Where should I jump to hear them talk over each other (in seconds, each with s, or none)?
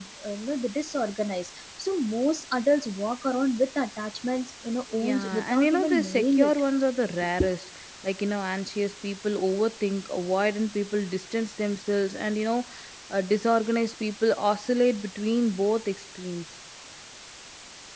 5.0 s